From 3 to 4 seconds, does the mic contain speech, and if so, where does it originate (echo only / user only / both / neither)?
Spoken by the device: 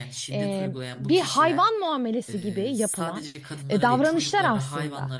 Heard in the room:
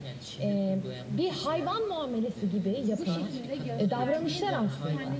both